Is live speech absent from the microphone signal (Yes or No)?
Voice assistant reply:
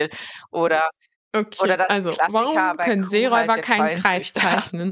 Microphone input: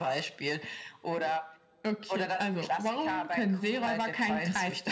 Yes